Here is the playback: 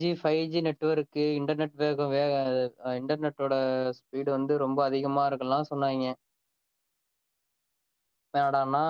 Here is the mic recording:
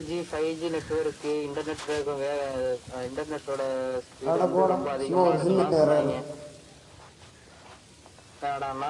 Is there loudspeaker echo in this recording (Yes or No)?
Yes